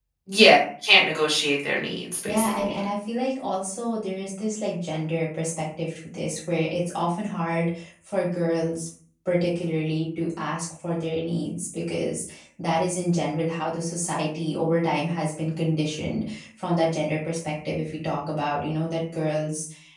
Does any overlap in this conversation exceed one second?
No

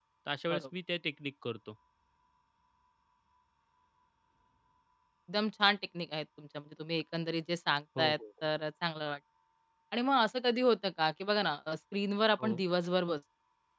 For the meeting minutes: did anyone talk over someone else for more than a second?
No

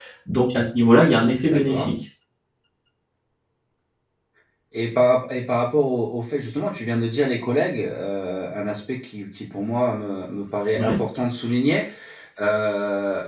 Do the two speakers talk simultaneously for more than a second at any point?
No

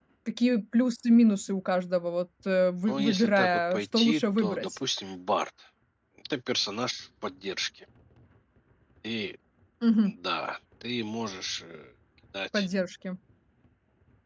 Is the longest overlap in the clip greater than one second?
Yes, from 2.9 s

